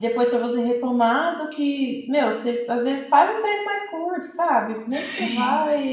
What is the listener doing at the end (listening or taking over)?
listening